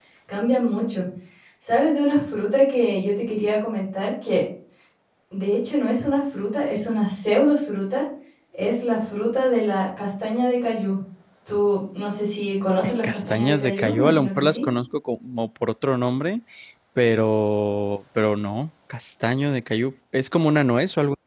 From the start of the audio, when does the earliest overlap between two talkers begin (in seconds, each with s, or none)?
12.8 s